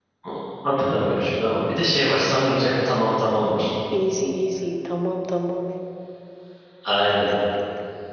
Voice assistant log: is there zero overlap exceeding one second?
Yes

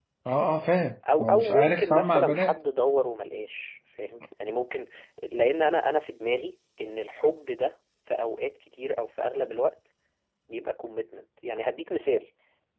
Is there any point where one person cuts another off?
Yes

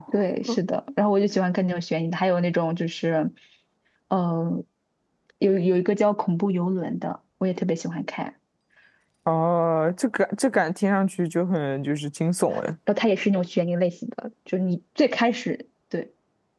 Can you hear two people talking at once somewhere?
No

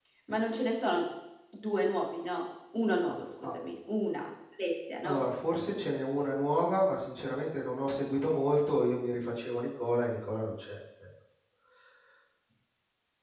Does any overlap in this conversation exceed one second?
No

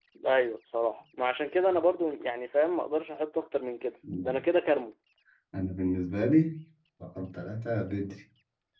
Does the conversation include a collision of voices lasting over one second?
No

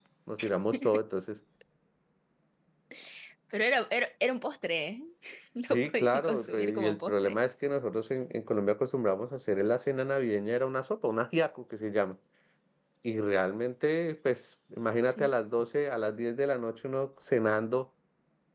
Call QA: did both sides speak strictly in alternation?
No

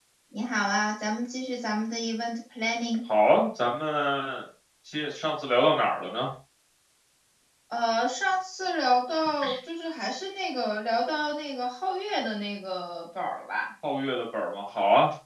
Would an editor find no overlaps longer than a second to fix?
Yes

